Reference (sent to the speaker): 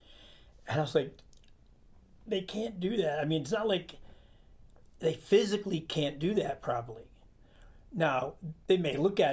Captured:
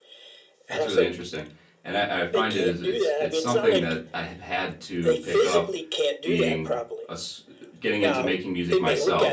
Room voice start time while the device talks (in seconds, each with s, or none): 0.7 s